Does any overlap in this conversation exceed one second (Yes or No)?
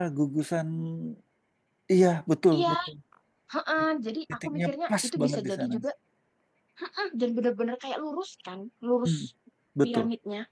Yes